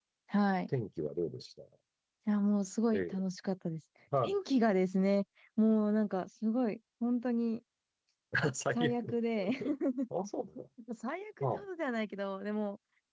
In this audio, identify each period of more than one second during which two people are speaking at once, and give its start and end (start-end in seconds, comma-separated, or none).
none